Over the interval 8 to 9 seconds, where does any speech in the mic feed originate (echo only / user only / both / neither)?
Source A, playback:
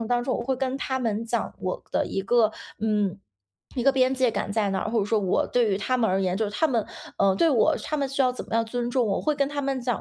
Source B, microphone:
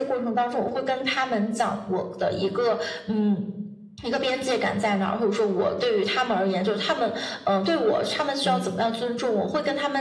both